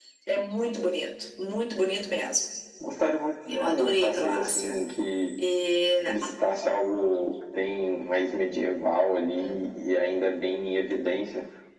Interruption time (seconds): 3.5 s

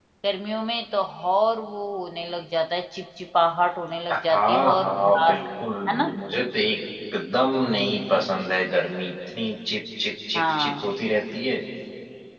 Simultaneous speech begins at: 4.1 s

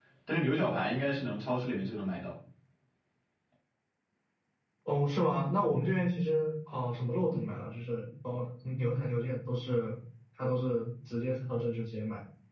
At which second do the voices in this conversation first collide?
none

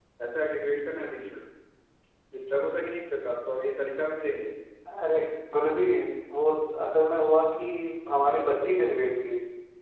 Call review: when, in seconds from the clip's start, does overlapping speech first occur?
none

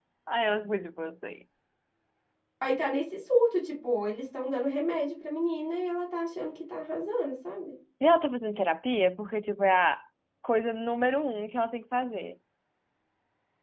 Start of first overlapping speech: none

